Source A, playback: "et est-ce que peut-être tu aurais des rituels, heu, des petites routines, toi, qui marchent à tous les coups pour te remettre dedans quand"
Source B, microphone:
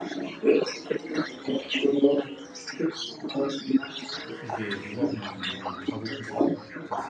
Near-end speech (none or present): present